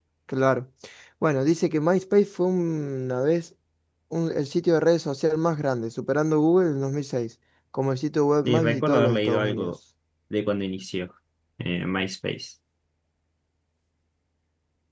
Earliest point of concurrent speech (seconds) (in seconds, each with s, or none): 8.4 s